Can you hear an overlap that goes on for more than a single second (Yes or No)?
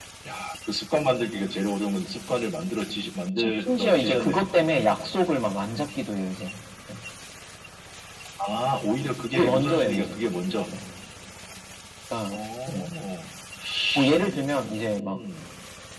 Yes